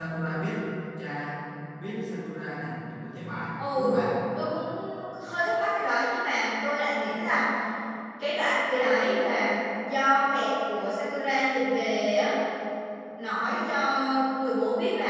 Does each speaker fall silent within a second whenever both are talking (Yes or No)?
Yes